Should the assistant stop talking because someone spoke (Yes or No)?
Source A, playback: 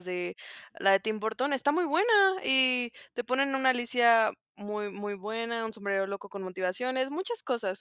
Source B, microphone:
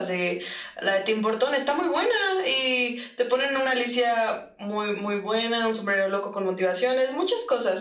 No